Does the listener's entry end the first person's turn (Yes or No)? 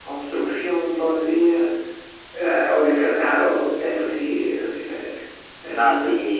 Yes